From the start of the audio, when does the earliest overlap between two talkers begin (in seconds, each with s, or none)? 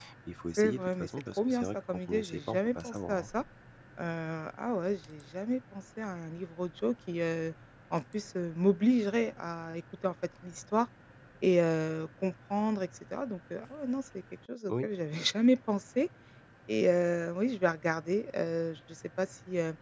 0.6 s